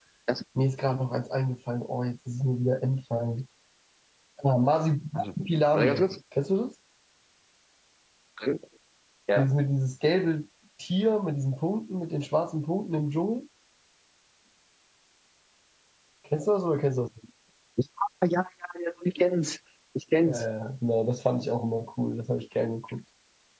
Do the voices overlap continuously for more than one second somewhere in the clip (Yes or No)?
No